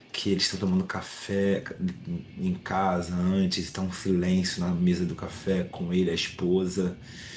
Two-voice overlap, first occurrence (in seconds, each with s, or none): none